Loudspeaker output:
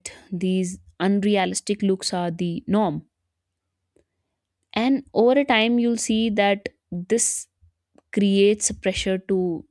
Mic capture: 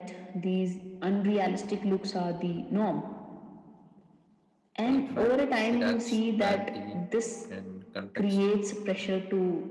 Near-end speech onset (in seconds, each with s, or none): 4.8 s